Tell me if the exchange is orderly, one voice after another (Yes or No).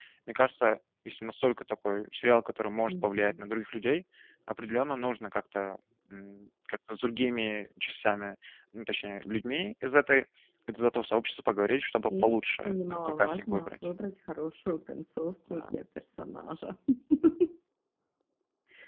No